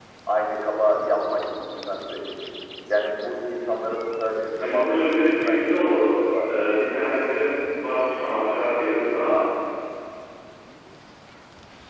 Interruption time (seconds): 5 s

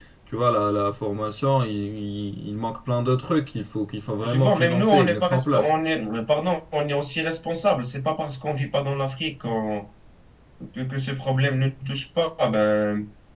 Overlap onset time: 4 s

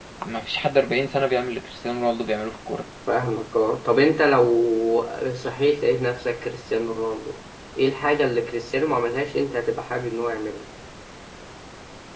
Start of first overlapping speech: none

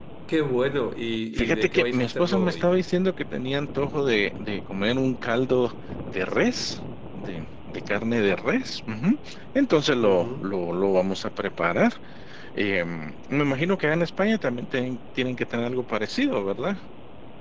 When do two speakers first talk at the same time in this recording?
1 s

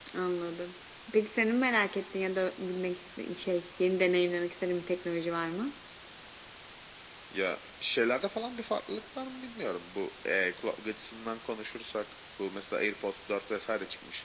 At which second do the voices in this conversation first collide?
none

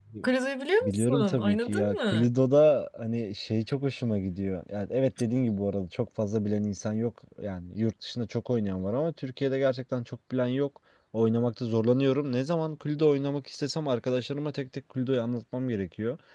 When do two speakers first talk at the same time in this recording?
1 s

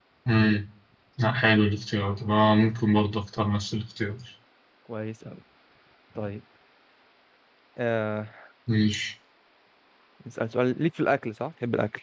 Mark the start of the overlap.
none

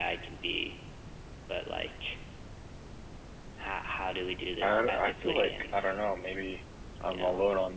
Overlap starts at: 5 s

